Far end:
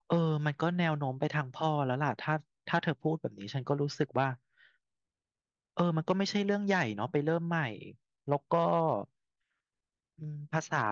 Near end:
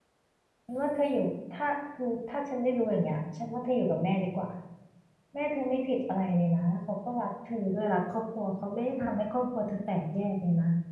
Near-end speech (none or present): present